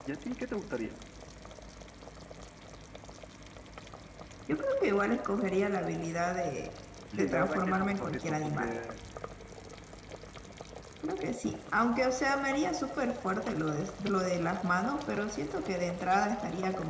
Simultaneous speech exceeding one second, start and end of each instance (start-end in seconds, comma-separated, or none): 7.1-8.7